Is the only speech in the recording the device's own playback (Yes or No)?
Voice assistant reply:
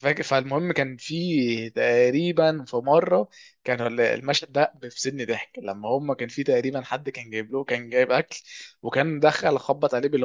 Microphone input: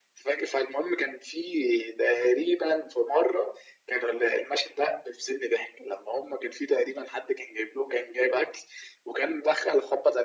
Yes